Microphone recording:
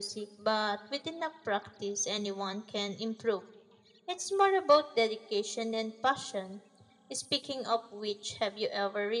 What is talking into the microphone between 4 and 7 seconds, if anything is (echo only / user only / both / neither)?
echo only